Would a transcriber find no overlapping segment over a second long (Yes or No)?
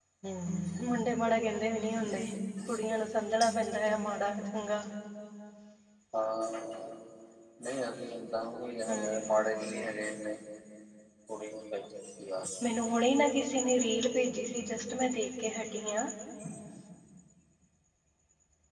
Yes